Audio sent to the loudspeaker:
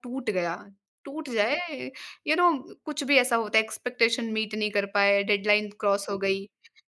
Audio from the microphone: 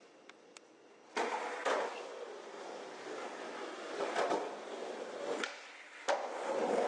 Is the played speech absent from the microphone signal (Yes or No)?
Yes